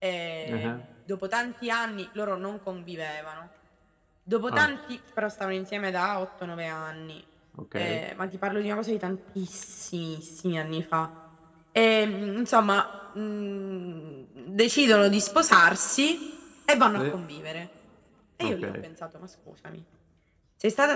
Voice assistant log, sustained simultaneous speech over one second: none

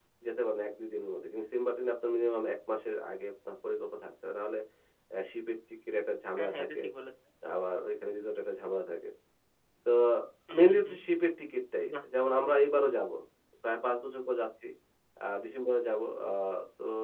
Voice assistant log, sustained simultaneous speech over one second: none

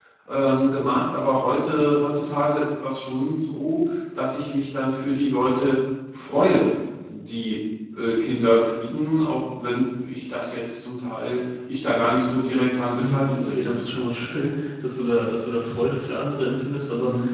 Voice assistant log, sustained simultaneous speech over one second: present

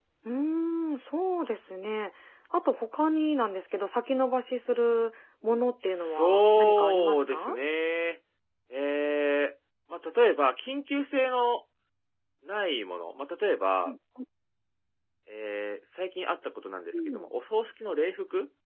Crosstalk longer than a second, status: present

